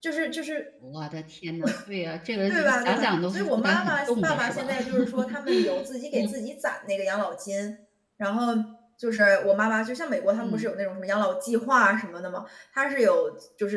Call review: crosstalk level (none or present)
present